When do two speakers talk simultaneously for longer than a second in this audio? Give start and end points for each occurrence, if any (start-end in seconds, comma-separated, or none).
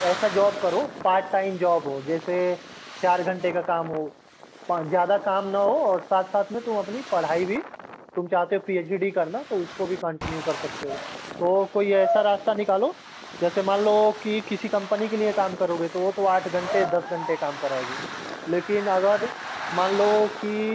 none